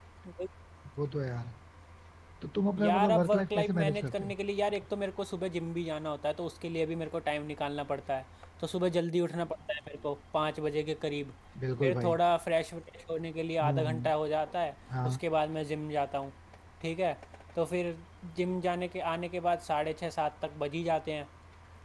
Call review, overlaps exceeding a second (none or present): present